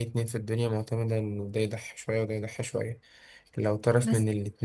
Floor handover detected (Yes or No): No